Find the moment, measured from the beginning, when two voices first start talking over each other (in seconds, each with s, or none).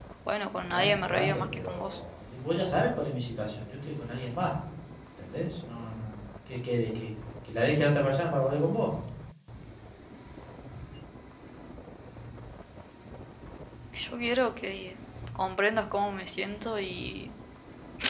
0.6 s